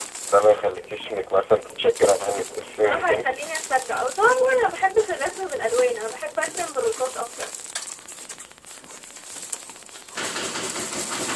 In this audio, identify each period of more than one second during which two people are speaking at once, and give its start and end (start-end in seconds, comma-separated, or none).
none